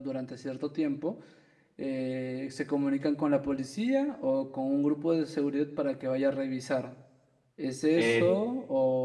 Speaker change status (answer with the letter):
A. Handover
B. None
B